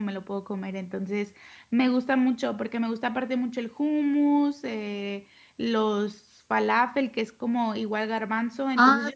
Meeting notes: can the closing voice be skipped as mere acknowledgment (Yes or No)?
No